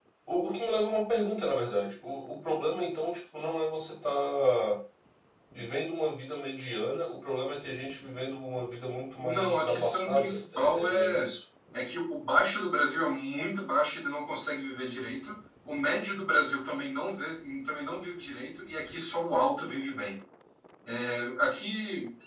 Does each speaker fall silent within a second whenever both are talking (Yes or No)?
No